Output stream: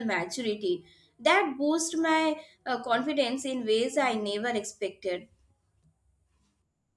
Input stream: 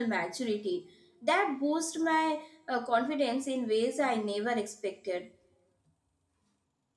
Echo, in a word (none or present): present